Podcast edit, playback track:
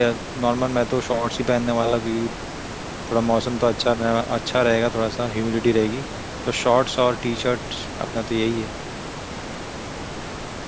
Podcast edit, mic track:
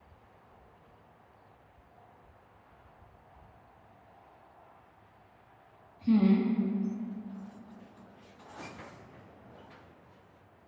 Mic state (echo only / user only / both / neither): user only